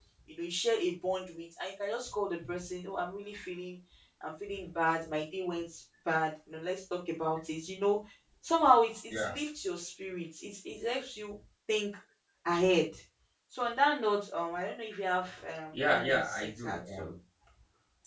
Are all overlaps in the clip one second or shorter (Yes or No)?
No